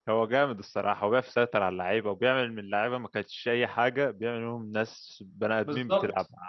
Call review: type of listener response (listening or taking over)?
taking over